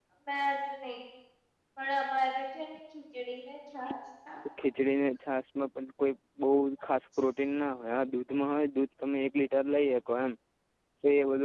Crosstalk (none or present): none